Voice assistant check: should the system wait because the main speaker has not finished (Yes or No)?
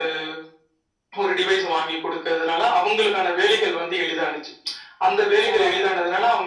Yes